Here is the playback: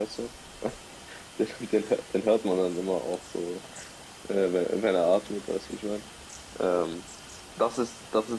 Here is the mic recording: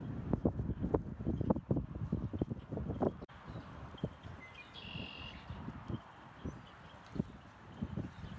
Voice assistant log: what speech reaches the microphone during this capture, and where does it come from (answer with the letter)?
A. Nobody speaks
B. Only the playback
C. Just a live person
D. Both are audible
A